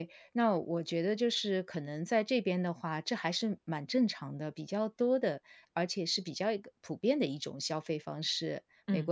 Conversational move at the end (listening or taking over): listening